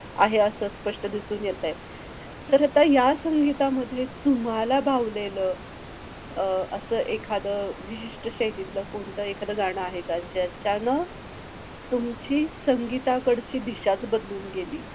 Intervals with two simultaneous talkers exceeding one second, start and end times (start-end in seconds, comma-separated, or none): none